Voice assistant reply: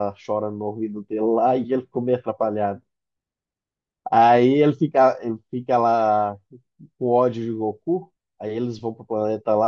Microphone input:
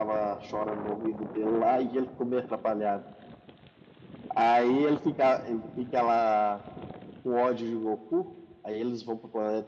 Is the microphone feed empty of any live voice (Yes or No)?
Yes